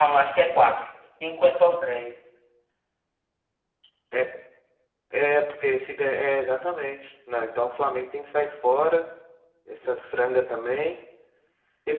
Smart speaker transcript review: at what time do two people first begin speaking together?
none

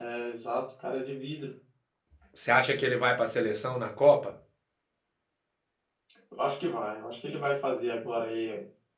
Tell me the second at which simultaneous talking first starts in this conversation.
none

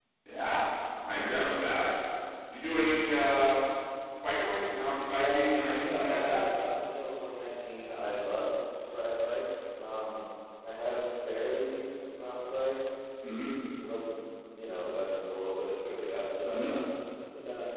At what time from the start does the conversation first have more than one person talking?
5.1 s

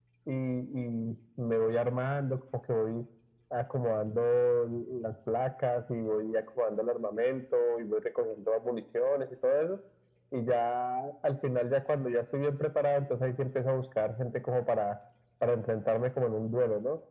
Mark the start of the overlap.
none

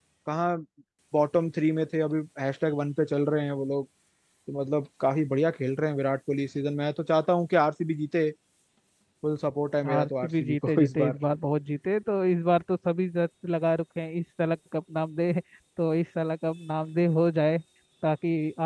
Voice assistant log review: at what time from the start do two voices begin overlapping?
9.9 s

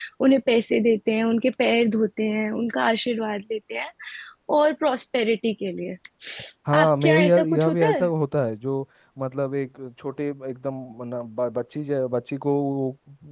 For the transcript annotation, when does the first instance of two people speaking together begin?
6.8 s

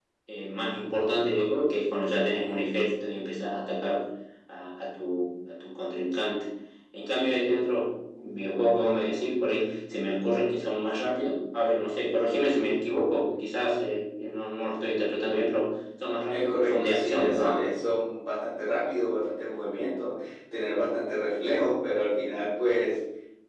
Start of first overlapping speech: 16.3 s

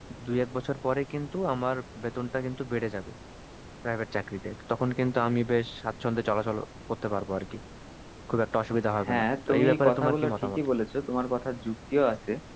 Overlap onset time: 9.1 s

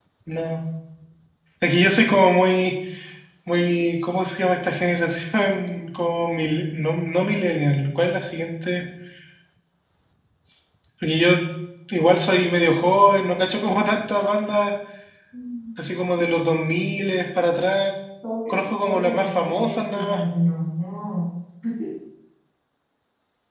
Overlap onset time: 18.5 s

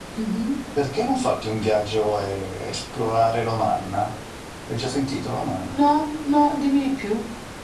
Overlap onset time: none

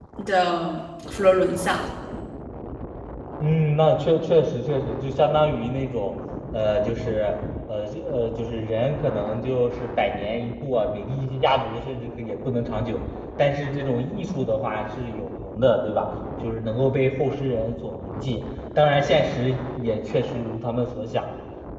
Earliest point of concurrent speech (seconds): none

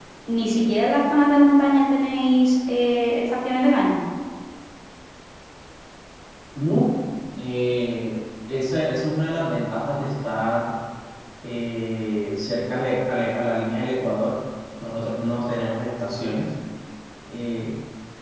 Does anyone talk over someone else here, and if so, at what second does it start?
none

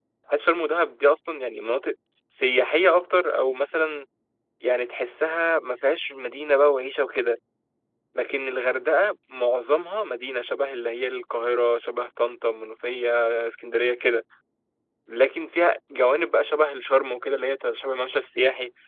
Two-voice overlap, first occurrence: none

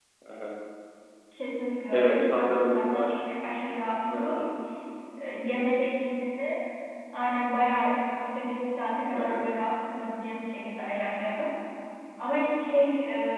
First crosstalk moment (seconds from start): 1.9 s

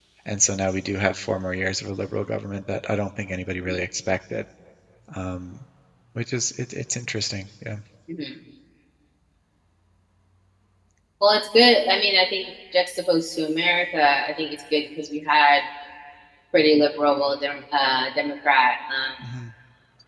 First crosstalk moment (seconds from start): none

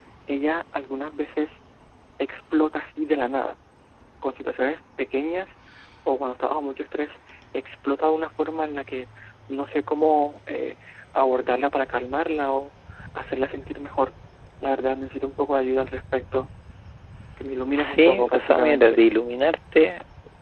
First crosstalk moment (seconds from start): 17.8 s

